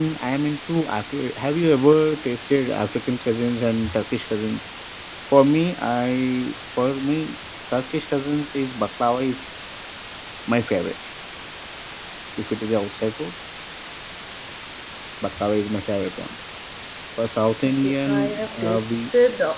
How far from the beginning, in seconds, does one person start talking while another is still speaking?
18 s

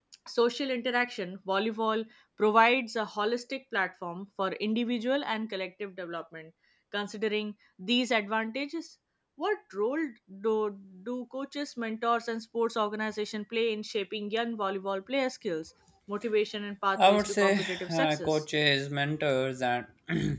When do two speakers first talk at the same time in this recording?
17 s

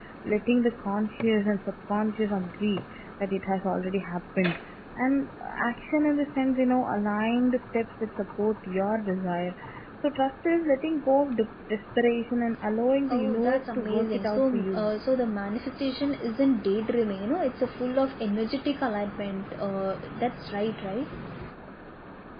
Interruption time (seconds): 13 s

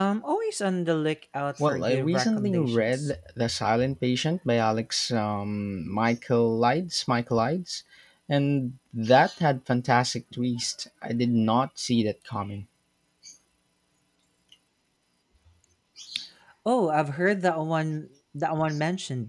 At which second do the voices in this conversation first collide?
2 s

